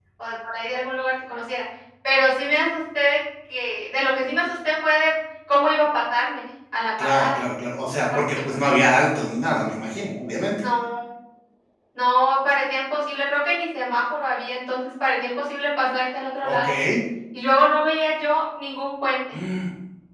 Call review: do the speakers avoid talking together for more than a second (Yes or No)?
Yes